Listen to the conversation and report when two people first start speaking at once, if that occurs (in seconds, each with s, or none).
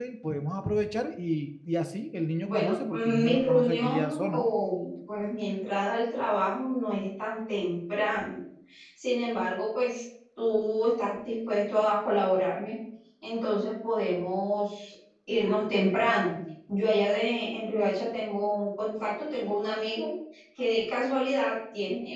2.4 s